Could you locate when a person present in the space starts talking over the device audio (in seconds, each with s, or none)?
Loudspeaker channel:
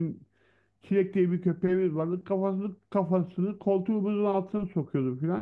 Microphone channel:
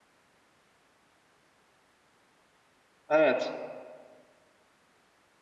3.1 s